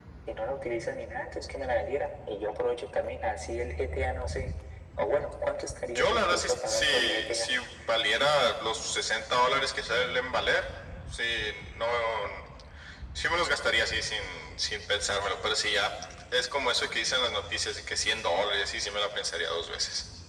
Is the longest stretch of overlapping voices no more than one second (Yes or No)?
No